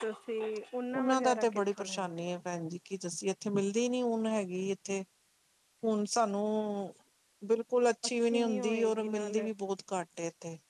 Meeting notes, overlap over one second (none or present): present